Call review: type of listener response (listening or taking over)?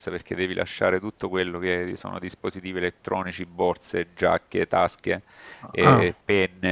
listening